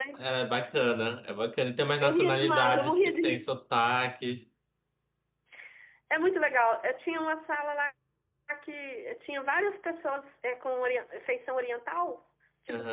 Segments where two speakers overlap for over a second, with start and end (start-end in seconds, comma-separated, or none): 2.0-3.5